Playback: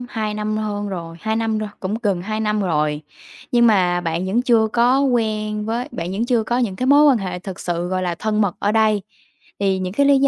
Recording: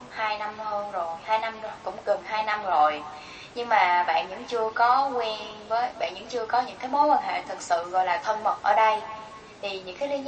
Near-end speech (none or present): none